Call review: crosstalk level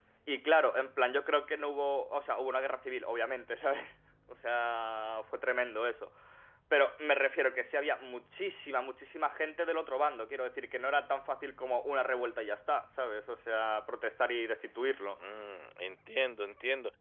none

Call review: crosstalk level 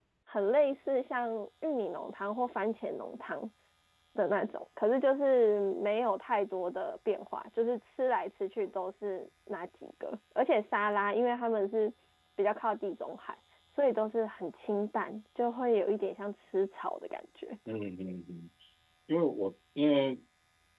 none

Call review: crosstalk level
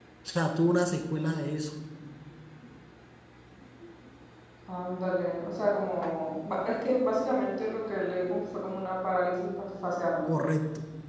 none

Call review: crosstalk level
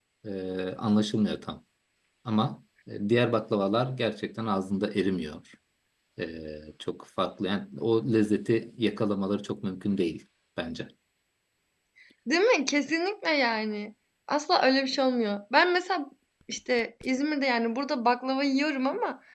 none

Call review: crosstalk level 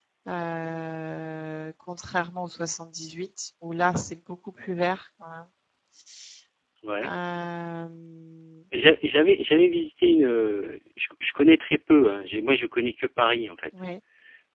none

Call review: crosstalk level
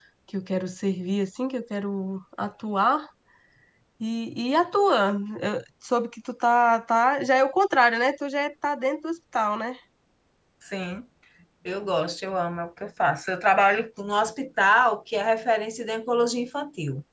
none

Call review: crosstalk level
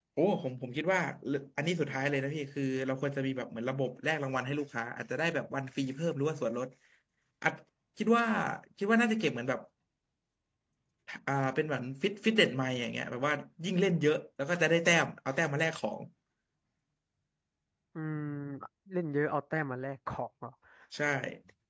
none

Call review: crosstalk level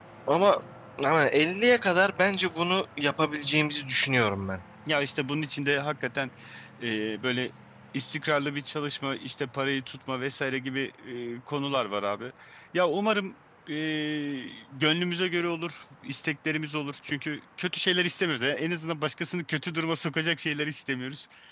none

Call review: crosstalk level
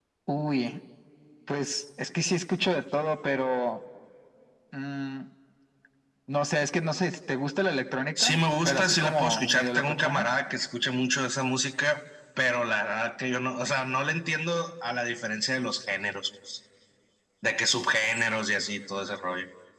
present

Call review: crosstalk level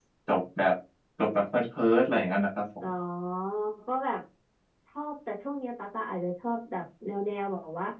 none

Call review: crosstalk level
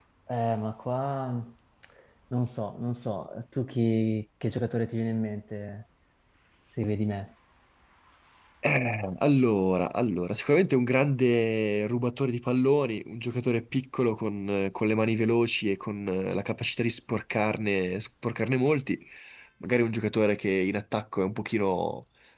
none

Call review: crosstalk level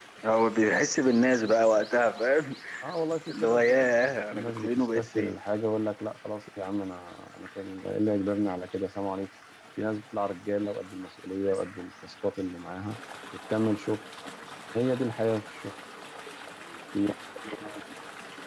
present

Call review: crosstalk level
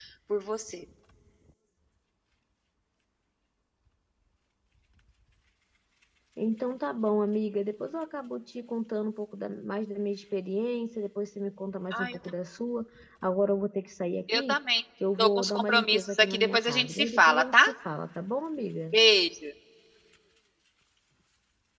present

